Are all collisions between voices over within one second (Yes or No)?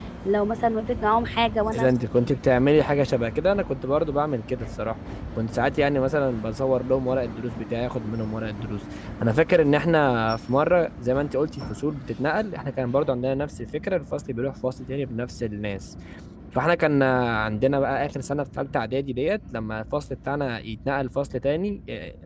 Yes